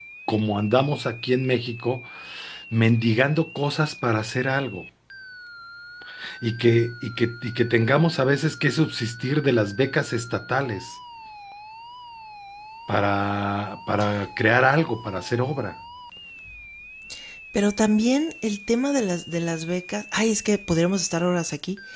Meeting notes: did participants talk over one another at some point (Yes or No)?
No